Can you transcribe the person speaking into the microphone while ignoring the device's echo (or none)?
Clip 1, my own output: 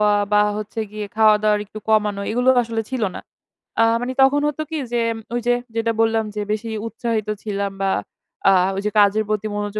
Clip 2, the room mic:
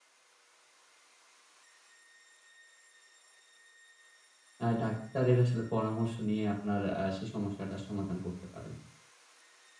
আ ডাক্তারের আসলে পরামর্শ নিয়ে আপনার আ সেই সমস্যাটার সমাধান করতে পারেন।